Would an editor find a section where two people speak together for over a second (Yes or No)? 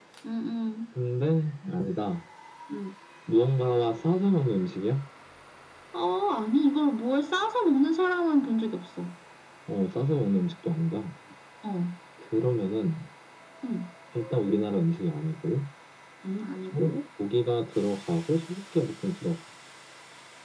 No